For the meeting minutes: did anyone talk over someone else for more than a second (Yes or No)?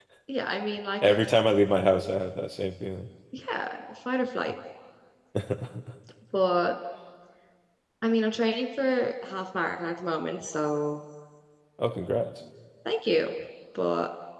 No